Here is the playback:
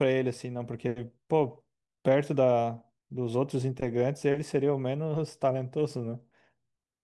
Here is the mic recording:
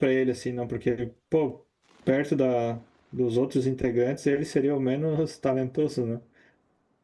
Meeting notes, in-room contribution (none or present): none